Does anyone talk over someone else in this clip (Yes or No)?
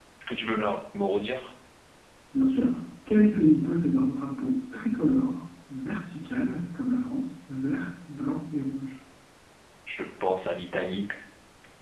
No